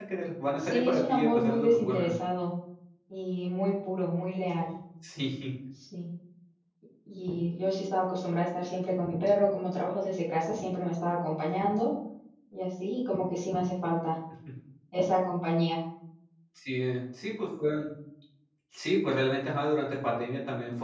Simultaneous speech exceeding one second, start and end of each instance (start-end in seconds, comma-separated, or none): 0.6-2.1